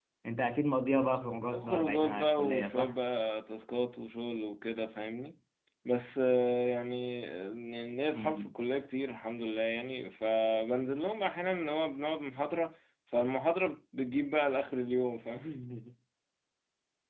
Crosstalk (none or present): present